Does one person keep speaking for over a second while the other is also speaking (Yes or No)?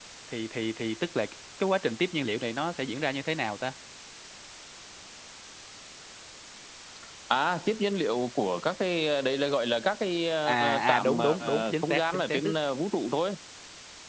Yes